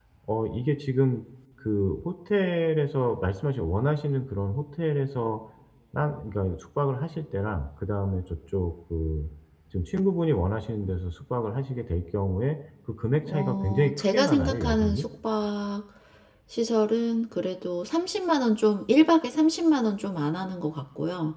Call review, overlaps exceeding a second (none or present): present